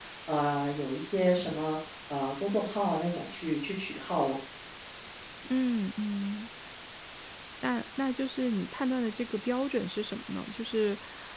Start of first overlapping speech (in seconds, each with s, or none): none